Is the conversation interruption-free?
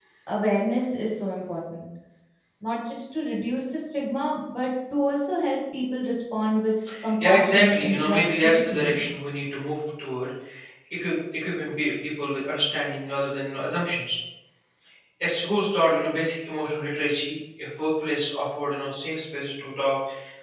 No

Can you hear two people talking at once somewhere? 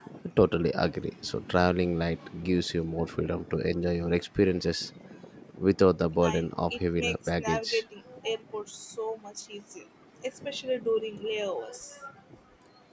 Yes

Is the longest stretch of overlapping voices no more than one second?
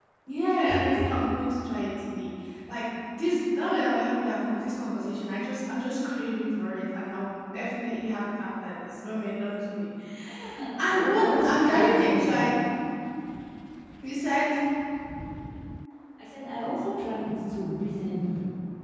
No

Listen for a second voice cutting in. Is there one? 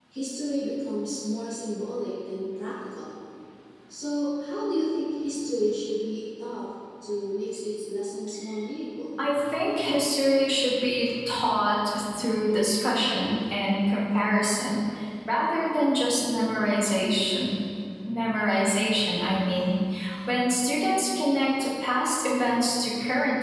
No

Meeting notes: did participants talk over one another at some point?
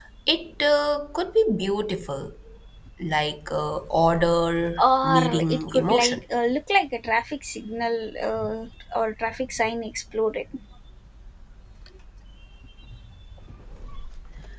Yes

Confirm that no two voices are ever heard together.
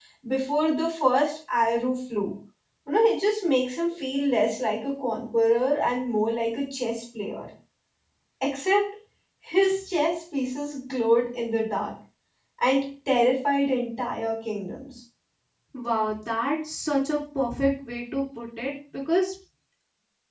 Yes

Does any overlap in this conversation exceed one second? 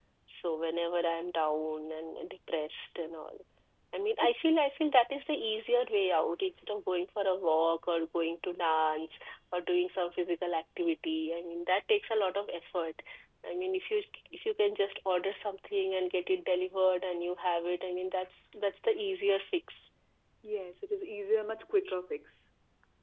No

